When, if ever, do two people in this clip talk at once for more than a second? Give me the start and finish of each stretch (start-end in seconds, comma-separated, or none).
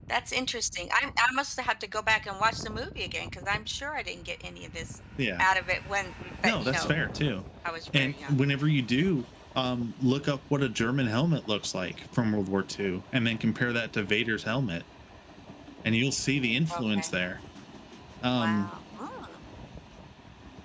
none